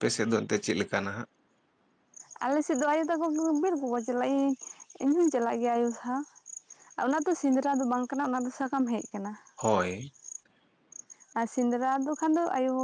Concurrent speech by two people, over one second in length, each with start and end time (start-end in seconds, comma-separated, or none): none